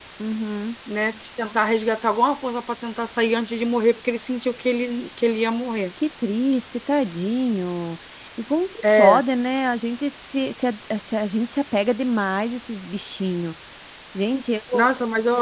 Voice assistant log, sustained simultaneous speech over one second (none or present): none